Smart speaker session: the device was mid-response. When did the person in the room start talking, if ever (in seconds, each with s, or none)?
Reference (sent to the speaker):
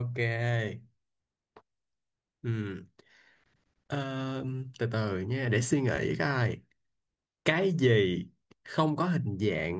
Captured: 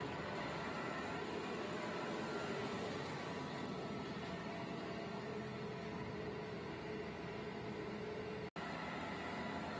none